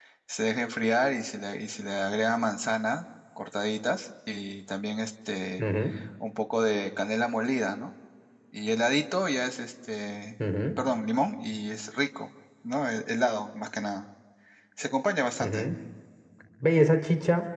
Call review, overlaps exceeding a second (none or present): none